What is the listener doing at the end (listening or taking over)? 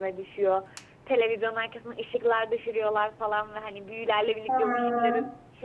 listening